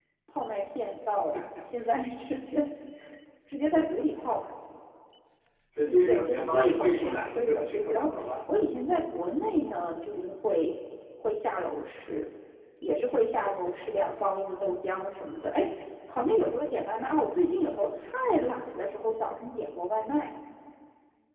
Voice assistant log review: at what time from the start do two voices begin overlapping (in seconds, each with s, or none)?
5.8 s